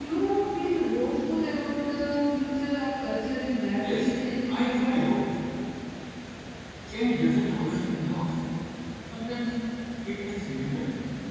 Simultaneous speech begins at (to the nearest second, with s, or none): 4 s